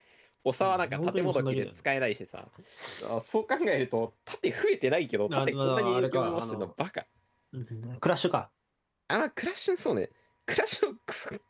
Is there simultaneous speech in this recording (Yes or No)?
Yes